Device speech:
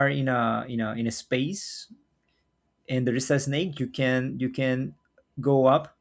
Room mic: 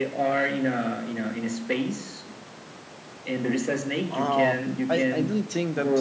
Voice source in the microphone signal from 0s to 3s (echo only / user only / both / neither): echo only